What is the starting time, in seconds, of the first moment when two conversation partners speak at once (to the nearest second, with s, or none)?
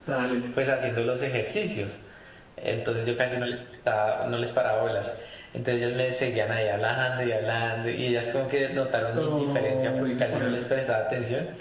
9 s